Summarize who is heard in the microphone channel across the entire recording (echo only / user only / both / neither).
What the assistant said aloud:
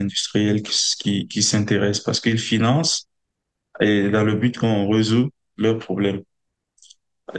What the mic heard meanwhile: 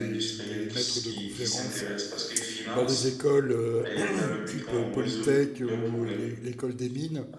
both